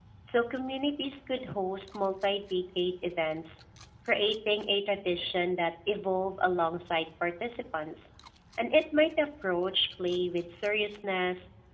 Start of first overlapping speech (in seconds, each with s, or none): none